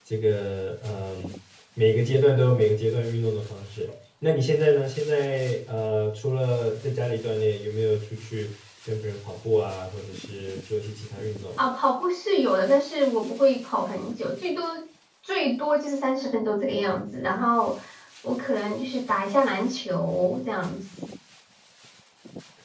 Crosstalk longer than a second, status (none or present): none